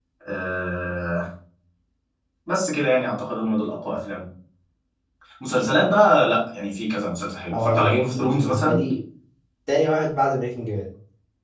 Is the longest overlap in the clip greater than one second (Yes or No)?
Yes